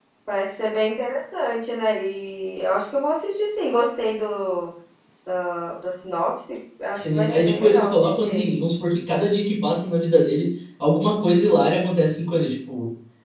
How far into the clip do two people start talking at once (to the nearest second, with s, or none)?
7 s